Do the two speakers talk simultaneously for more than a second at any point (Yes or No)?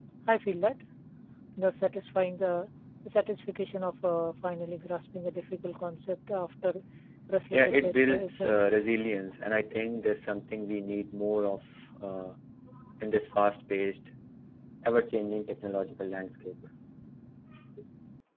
Yes